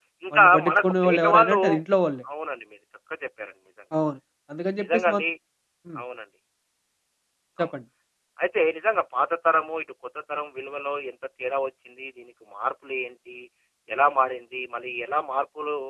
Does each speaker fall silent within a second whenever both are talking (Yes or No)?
No